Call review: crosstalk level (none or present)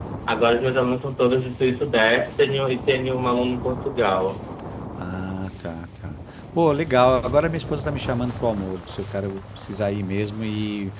none